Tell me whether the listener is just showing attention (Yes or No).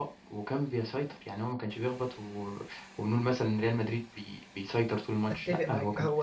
No